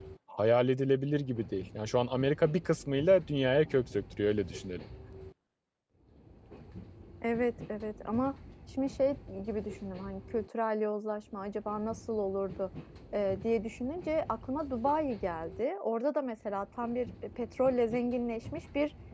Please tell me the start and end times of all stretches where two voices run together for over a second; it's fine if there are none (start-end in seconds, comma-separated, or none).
none